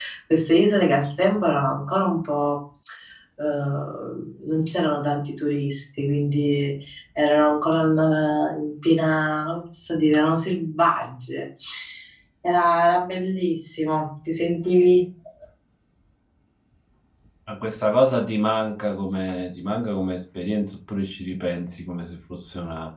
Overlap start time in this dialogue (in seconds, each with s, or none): none